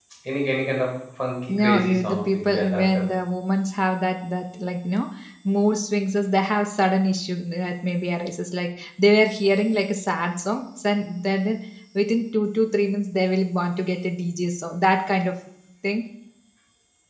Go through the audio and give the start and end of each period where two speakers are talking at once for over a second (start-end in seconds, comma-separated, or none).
1.5-3.1